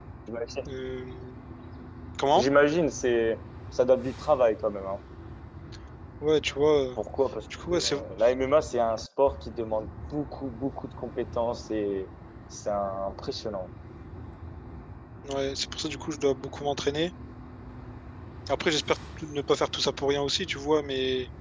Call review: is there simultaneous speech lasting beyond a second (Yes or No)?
No